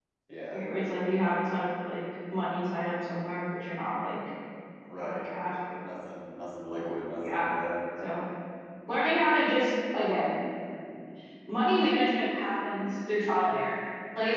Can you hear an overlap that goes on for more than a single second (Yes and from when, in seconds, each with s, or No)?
No